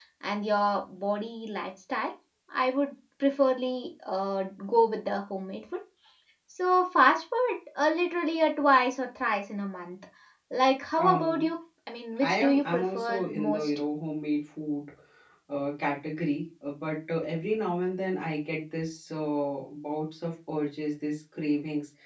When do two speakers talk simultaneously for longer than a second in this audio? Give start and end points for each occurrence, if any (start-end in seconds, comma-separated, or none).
12.2-13.8